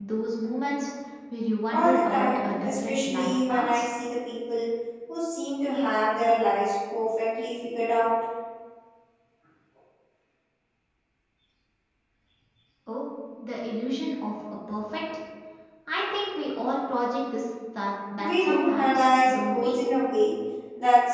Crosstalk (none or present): present